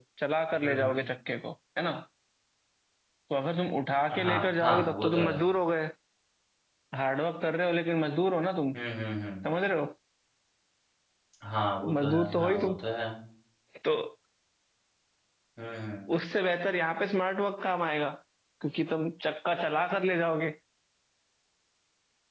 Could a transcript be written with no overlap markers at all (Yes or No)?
No